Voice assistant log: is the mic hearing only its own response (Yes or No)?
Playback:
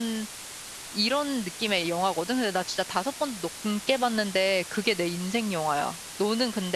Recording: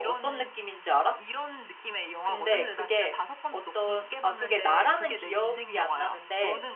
No